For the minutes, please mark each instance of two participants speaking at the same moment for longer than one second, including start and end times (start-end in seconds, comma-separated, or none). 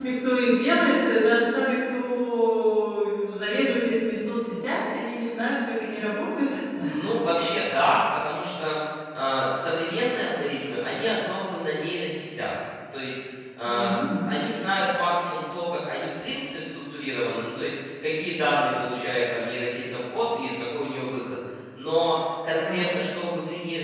none